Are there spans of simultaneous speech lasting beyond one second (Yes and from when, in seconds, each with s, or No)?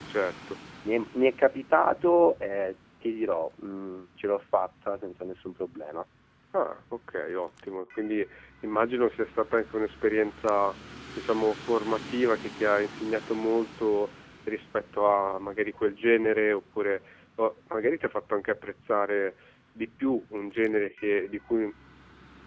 No